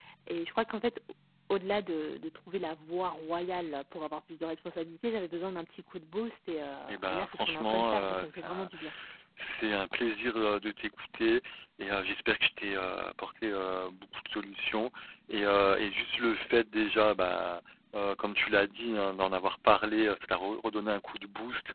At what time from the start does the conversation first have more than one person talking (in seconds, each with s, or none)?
6.9 s